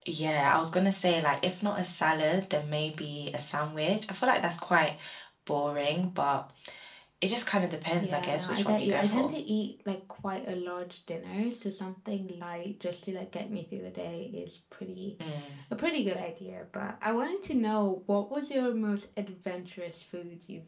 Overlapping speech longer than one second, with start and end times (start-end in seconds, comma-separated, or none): 8.0-9.3